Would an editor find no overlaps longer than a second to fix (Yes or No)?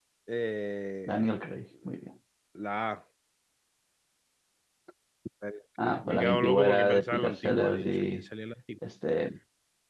No